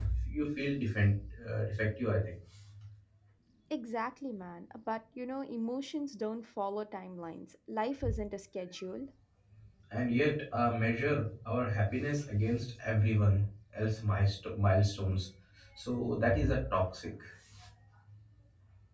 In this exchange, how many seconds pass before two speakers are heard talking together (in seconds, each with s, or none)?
none